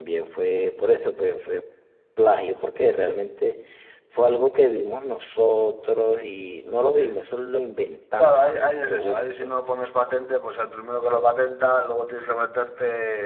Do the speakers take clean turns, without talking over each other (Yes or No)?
No